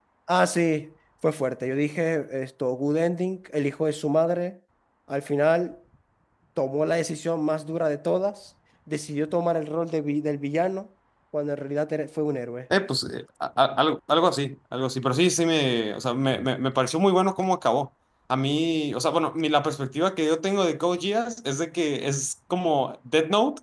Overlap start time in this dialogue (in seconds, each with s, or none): none